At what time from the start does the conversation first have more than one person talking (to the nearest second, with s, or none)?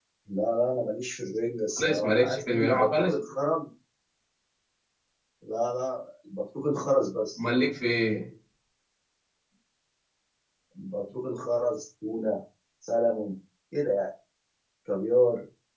2 s